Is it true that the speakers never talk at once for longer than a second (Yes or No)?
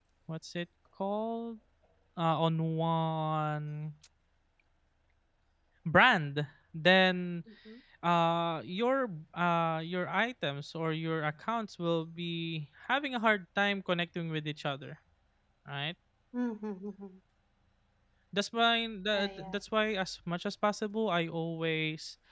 Yes